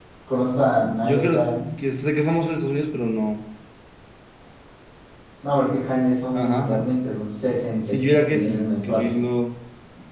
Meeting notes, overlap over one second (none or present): present